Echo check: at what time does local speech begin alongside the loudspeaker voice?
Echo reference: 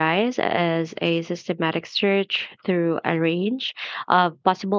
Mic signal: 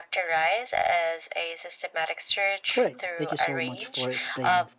3 s

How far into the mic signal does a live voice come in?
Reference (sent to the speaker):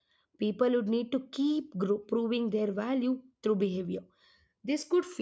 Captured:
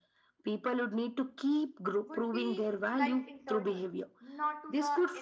2 s

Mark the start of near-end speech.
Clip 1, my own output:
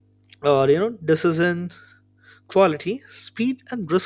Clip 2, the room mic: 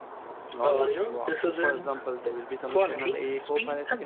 0 s

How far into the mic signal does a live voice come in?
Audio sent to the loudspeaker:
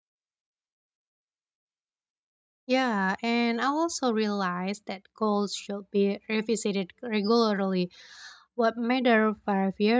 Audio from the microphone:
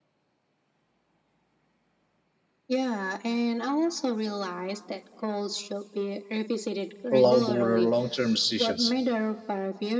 7 s

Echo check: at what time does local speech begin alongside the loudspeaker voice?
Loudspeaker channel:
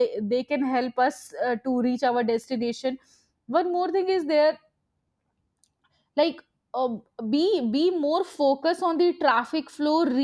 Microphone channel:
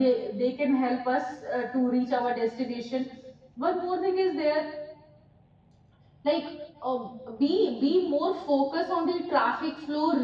none

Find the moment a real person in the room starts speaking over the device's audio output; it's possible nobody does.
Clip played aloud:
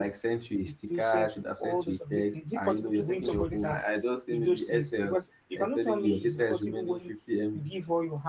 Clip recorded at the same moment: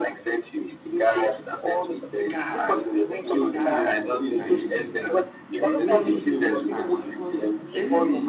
2 s

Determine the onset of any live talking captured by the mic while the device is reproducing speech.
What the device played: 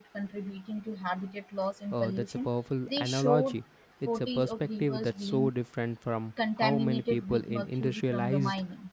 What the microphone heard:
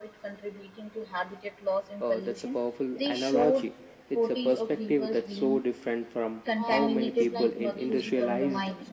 7 s

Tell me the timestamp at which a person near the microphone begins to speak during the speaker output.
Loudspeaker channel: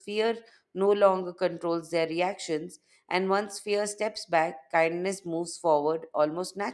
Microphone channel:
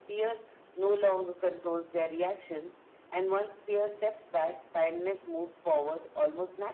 none

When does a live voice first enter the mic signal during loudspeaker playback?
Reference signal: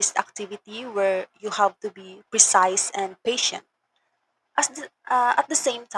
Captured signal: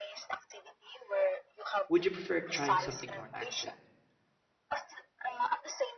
2 s

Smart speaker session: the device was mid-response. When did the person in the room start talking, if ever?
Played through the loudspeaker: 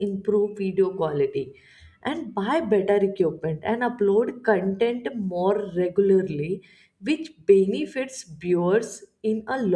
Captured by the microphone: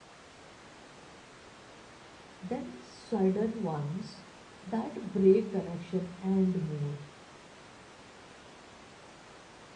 2 s

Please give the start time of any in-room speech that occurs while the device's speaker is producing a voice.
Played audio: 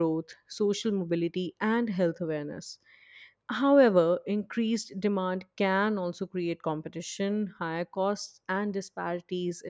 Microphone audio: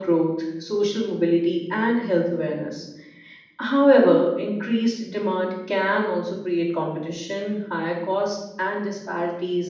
none

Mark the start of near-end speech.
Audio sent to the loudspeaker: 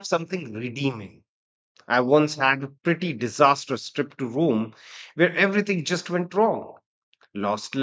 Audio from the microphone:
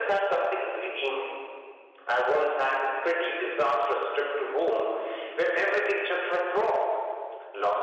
none

